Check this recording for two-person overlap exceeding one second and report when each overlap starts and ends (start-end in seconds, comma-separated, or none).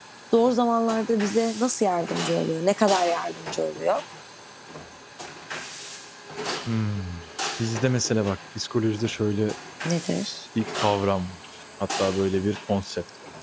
none